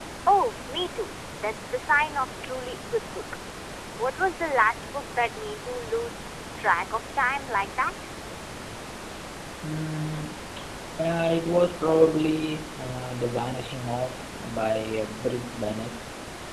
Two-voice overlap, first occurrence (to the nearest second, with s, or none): none